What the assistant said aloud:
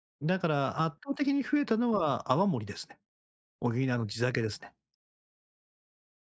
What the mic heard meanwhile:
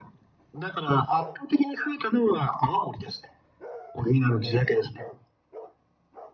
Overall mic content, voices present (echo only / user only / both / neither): echo only